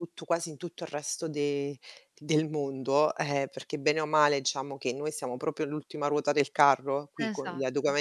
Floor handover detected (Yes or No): No